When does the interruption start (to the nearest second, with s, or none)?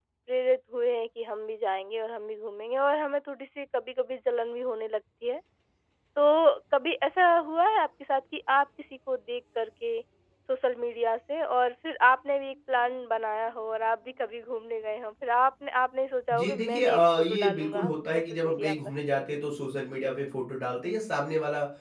16 s